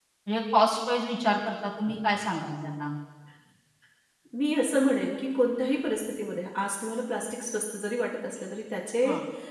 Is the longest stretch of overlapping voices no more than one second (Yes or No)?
Yes